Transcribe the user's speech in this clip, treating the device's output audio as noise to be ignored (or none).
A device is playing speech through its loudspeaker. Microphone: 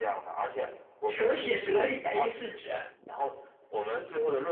手写德语 A 四纸。